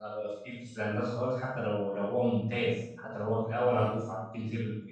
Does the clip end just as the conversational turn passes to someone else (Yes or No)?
No